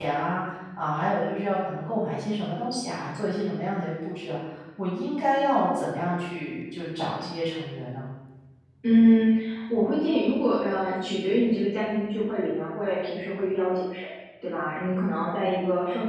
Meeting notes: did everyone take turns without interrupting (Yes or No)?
Yes